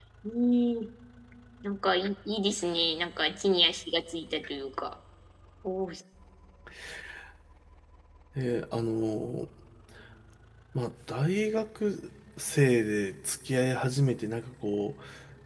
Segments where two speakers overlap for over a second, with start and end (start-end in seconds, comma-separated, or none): none